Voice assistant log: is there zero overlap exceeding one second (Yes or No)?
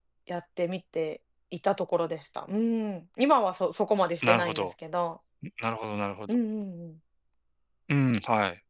Yes